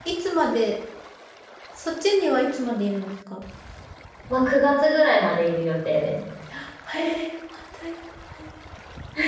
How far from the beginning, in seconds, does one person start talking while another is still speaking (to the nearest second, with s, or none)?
none